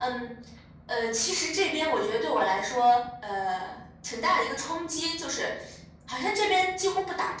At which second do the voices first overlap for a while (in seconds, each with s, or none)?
none